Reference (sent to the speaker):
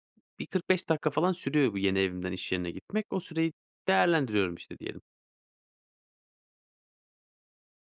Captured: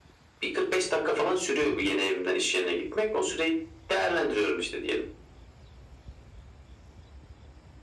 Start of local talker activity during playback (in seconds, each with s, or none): none